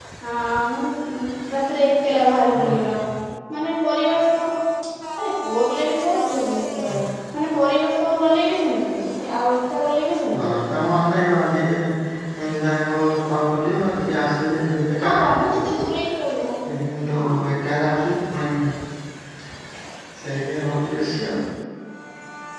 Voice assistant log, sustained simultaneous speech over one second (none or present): none